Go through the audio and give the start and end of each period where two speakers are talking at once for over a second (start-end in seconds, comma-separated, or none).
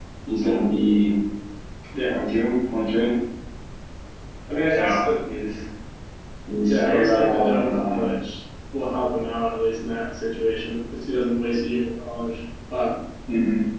6.7-8.1